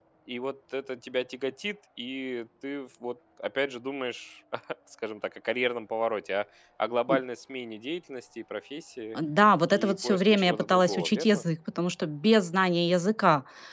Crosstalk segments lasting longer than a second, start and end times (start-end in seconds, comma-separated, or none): 9.7-11.4